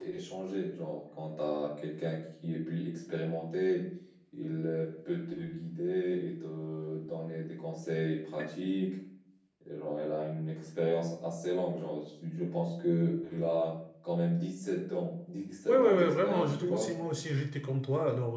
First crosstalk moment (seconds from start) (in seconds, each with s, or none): 15.7 s